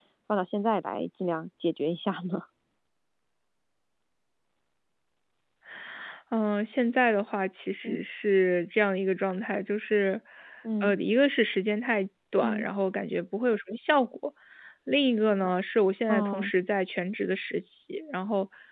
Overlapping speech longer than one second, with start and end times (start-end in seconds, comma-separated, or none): none